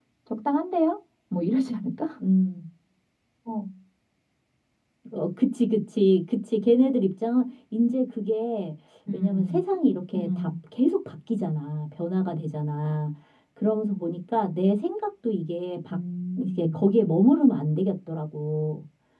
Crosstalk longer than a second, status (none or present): none